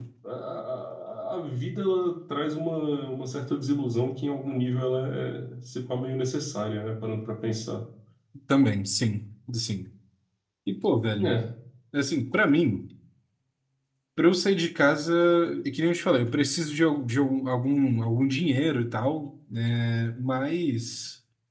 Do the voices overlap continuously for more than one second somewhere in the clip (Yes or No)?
No